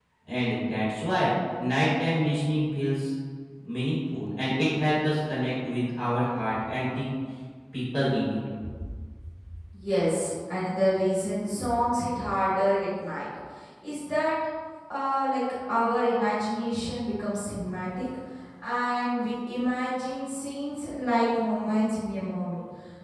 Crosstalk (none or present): none